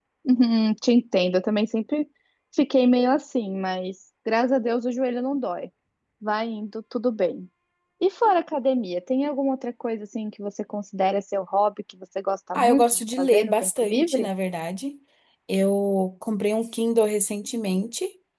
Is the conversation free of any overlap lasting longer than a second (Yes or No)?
No